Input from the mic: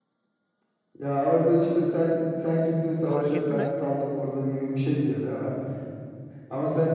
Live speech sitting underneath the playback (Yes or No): Yes